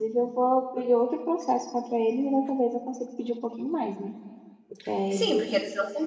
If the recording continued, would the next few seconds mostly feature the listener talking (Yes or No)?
Yes